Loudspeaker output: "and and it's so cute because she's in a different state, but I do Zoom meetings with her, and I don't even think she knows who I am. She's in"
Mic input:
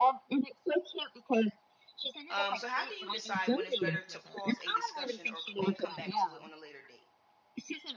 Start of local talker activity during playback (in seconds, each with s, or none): 2.3 s